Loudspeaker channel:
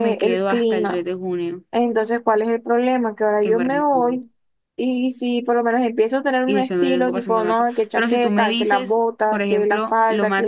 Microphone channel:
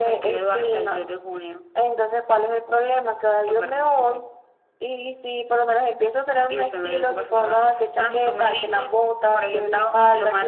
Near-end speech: none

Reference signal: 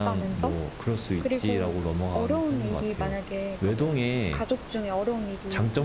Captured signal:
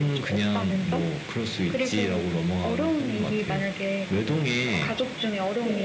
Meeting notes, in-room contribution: present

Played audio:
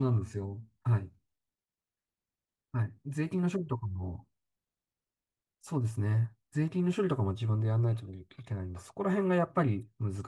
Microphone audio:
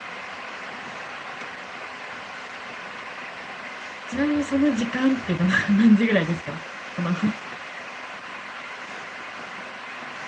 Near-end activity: present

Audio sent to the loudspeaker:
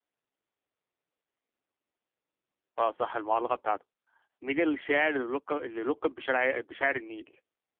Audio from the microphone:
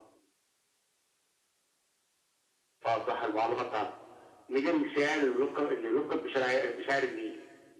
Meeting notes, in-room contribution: none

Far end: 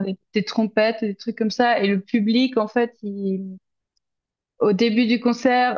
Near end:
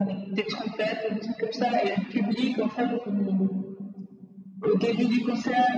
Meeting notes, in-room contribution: none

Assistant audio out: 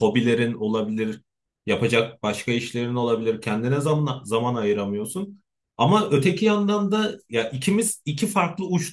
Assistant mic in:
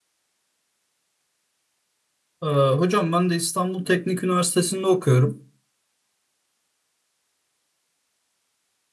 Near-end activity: present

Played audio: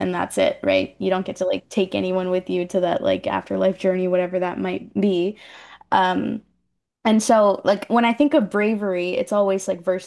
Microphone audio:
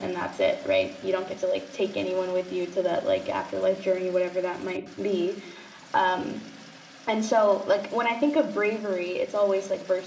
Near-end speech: none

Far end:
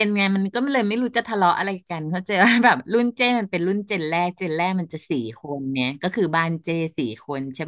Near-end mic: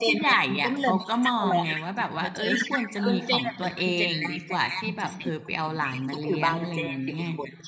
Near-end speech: present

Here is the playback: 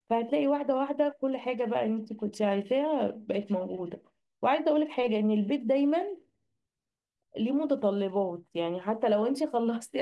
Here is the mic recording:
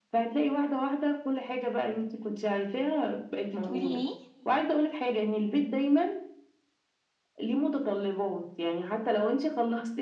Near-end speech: present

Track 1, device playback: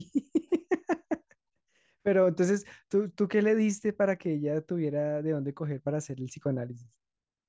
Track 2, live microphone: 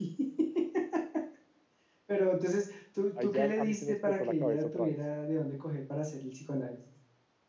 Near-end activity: present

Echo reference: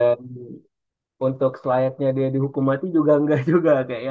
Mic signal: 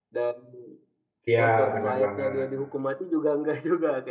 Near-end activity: present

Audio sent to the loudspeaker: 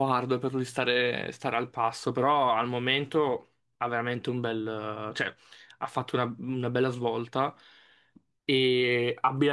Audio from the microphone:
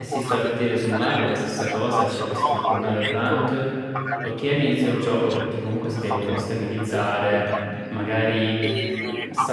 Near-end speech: present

